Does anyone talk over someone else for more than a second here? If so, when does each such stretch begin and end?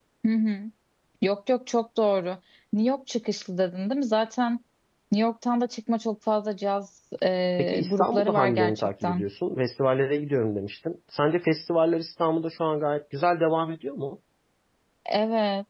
7.6-9.3

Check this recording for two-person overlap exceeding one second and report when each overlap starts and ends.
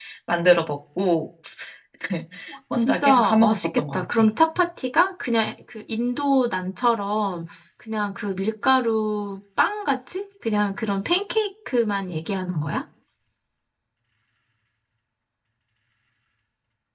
2.8-4.0

